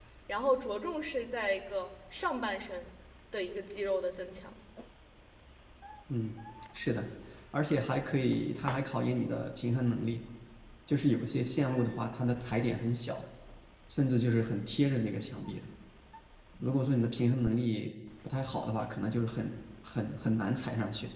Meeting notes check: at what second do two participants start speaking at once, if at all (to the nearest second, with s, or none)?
none